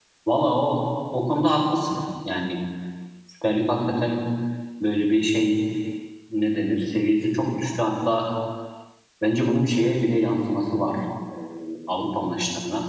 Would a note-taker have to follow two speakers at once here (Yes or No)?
No